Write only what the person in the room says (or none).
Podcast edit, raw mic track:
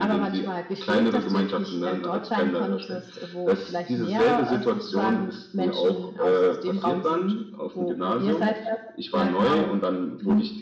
none